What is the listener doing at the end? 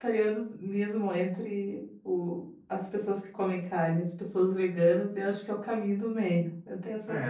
taking over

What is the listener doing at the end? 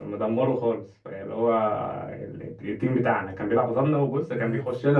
listening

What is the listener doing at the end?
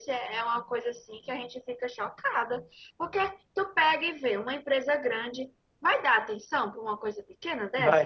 taking over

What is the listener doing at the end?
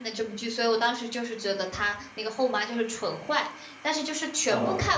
listening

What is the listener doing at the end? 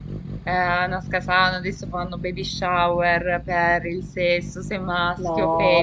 taking over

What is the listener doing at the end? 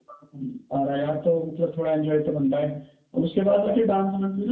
listening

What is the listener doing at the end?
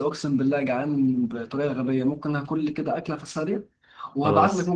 listening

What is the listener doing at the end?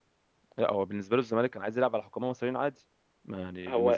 taking over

